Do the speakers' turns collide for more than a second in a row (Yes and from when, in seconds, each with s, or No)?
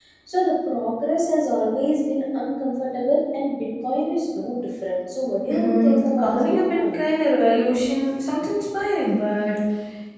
Yes, from 5.5 s